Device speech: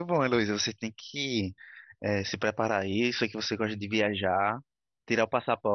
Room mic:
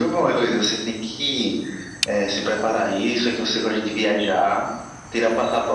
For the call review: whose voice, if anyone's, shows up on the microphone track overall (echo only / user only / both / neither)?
echo only